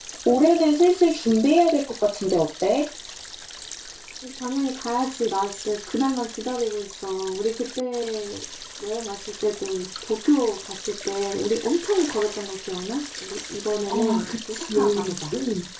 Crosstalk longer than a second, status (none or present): present